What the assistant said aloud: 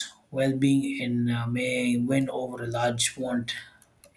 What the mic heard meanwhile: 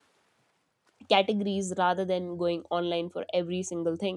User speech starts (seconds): 1.1 s

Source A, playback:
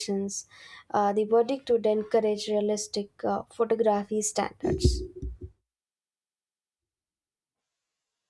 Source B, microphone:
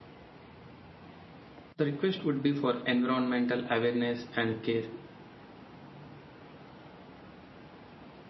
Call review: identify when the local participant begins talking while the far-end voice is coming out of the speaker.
1.7 s

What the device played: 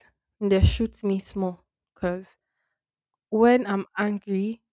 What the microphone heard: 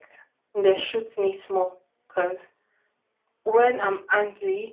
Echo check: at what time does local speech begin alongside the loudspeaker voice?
none

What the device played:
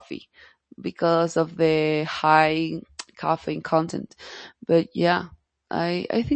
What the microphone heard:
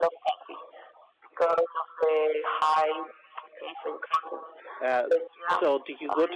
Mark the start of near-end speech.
4.8 s

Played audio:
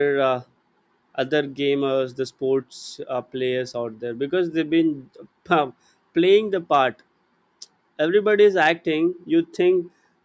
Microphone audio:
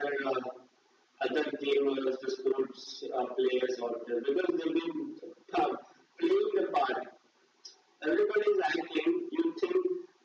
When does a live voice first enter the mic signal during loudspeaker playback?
none

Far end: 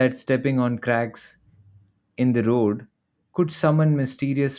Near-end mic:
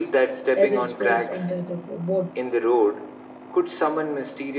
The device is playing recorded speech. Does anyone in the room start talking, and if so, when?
0.6 s

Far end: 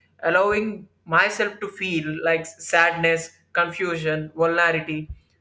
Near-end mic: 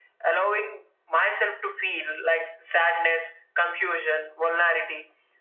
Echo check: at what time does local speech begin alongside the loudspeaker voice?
none

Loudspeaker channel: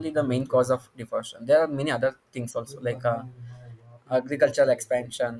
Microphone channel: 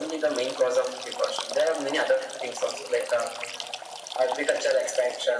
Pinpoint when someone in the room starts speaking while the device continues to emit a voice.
none

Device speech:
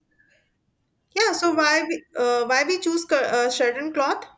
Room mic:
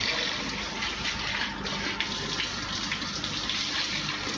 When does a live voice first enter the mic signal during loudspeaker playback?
none

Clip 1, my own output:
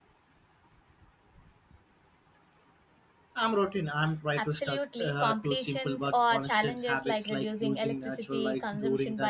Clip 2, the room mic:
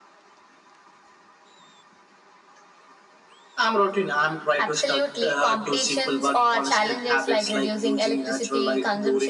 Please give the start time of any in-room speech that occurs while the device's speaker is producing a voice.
none

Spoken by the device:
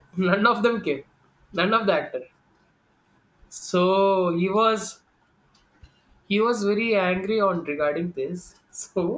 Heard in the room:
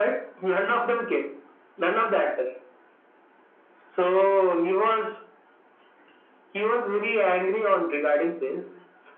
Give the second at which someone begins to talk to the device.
none

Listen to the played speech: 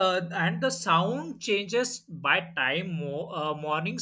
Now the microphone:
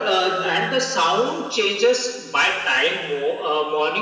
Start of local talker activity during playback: none

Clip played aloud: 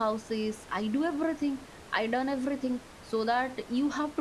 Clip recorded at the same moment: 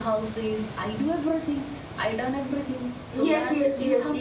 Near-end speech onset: 3.1 s

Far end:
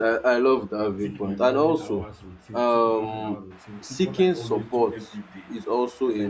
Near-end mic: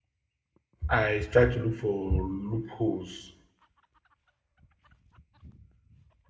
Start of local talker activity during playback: 0.9 s

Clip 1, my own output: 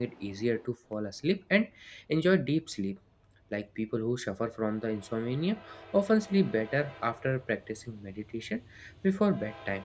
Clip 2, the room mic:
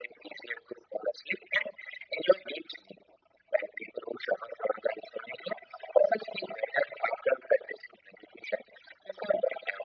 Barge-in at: none

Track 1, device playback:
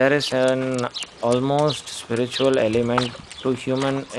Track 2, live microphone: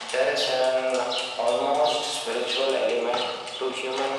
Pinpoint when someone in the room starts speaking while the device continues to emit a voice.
none

